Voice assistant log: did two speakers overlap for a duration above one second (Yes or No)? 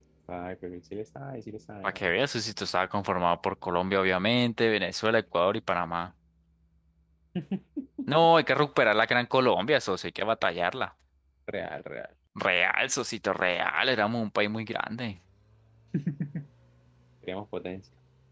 No